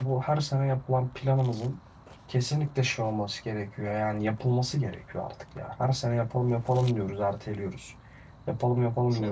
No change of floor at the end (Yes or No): Yes